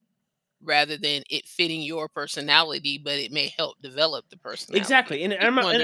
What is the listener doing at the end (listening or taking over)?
taking over